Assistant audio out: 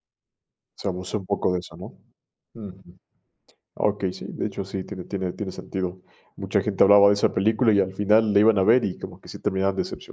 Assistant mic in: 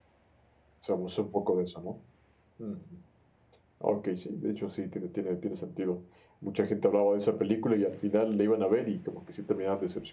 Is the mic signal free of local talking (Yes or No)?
Yes